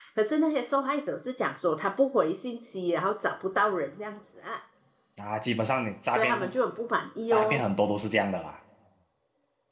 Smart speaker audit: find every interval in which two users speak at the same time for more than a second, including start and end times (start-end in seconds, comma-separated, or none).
none